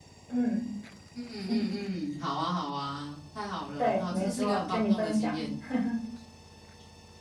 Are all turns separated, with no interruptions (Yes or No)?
No